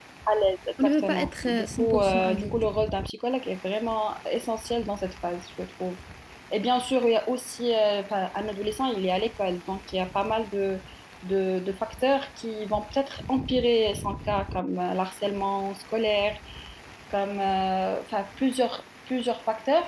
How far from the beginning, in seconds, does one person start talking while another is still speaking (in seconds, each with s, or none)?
0.8 s